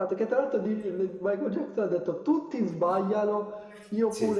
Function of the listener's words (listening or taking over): listening